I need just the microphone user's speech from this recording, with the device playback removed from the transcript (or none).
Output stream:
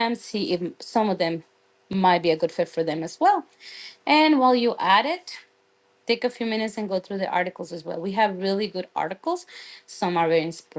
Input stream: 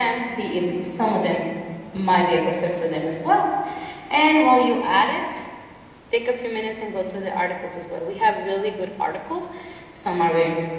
none